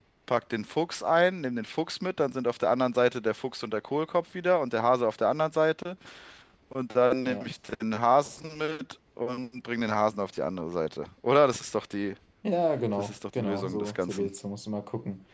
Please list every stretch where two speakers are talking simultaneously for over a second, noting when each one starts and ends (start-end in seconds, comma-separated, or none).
13.0-14.3